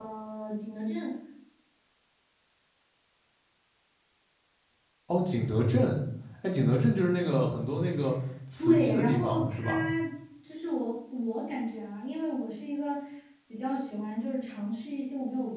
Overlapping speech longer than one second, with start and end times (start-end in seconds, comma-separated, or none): 8.6-9.8